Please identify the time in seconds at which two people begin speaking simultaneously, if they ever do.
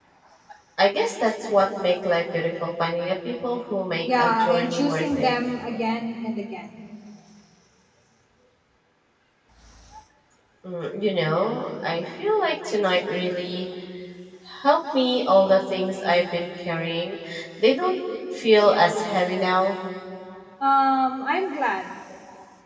4.0 s

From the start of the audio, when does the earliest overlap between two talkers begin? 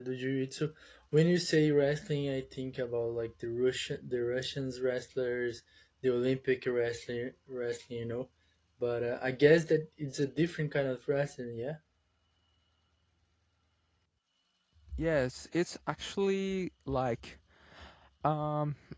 none

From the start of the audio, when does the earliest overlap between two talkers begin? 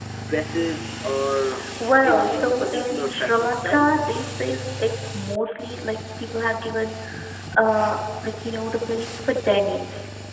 2.0 s

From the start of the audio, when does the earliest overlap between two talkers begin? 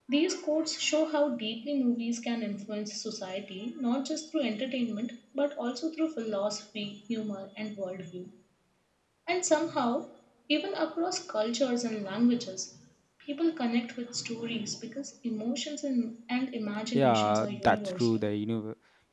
16.9 s

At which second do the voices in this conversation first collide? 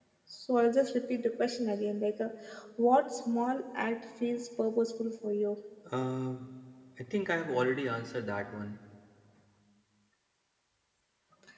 none

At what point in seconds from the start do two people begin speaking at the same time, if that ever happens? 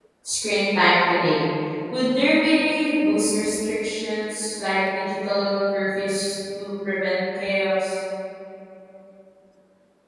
none

